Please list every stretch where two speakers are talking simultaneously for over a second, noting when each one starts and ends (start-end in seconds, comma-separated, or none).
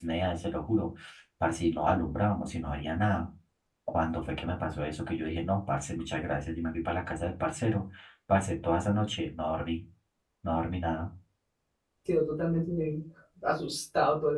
none